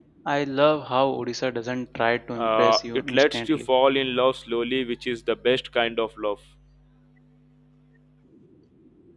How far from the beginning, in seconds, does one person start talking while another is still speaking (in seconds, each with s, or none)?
2.4 s